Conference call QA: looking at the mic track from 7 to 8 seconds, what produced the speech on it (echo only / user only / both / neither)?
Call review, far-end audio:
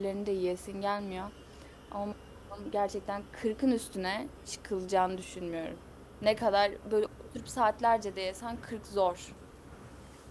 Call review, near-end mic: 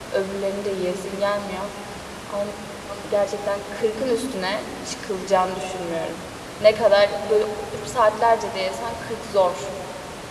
echo only